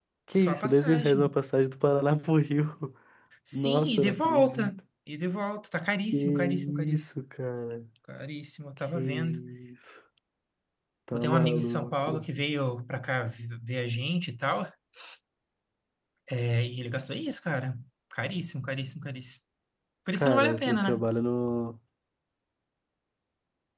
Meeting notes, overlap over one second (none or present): present